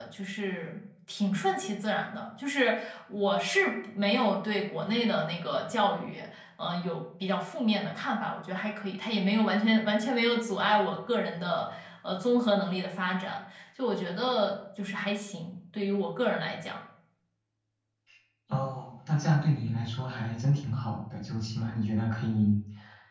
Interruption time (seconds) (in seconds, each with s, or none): none